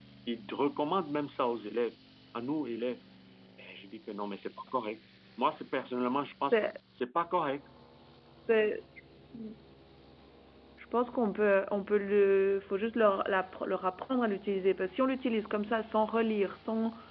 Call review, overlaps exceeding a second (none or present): none